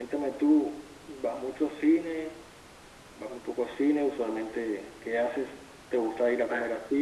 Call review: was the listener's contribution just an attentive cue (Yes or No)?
Yes